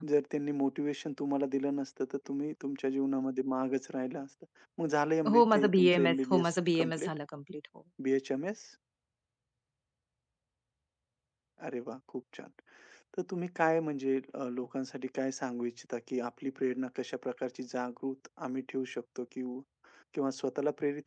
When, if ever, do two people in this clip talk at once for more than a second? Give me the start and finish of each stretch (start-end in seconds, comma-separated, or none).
5.3-7.1